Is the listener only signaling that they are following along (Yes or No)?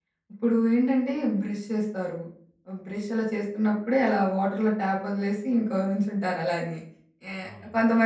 Yes